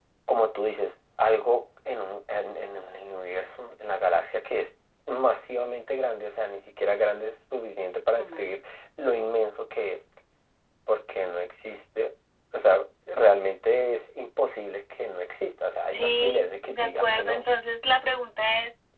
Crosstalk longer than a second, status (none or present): present